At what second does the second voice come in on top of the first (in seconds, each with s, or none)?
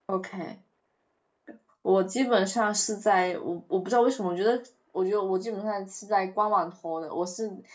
none